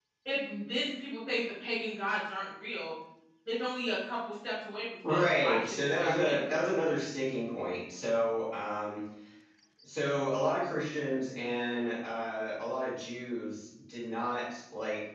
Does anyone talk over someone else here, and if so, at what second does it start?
5.0 s

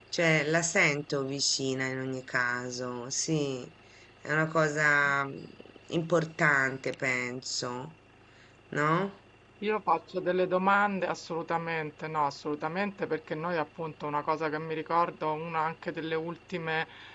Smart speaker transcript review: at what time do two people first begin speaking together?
none

